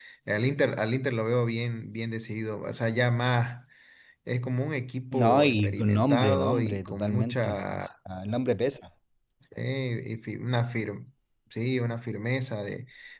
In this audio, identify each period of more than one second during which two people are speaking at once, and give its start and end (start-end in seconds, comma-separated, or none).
5.1-7.8